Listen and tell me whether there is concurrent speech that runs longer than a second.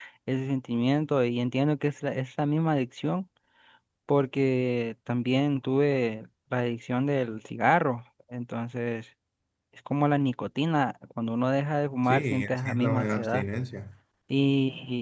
Yes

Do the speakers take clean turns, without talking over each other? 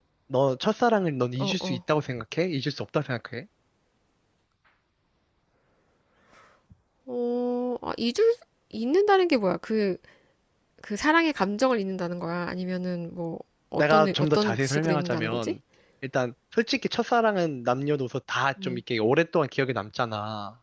No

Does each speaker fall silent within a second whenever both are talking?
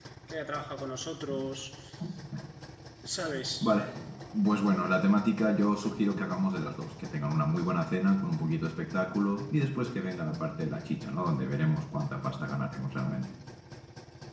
Yes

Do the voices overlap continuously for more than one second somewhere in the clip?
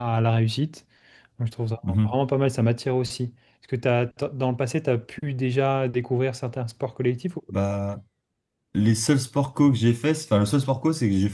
No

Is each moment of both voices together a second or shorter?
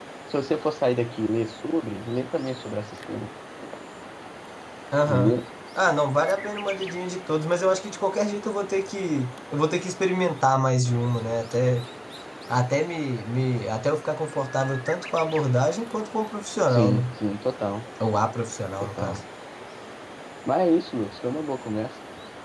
Yes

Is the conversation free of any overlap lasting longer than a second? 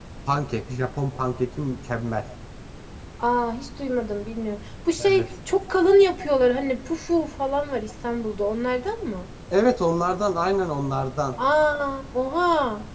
Yes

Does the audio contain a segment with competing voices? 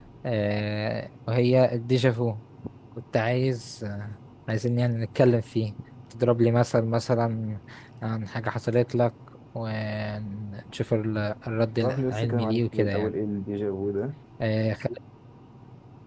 Yes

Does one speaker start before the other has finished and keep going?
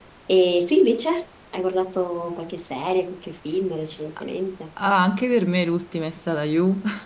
No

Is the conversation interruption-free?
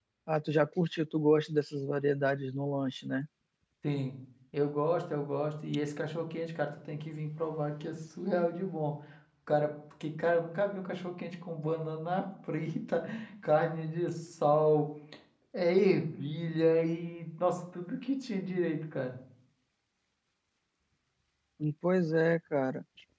Yes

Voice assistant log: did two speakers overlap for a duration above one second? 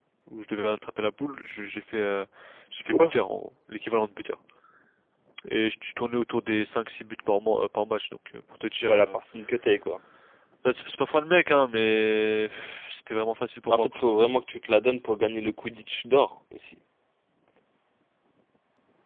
No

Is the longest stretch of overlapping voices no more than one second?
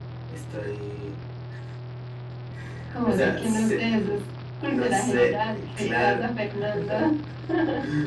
No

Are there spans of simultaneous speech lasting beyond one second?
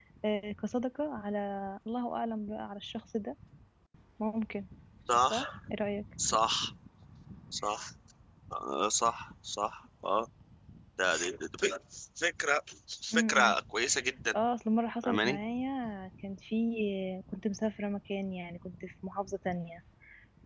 No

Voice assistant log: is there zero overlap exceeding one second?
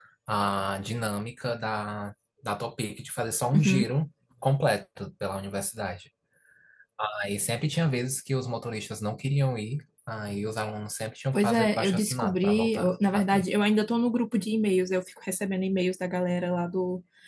No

